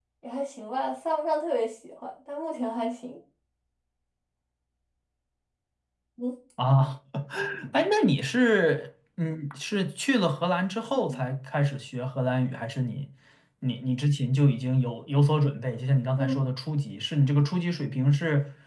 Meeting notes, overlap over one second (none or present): none